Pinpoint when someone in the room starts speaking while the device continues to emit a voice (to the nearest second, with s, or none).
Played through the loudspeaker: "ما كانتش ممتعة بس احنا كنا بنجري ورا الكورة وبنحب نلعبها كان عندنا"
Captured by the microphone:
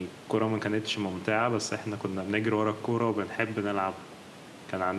none